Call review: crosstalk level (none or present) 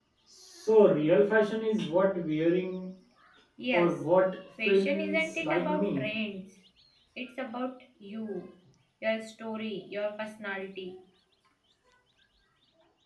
present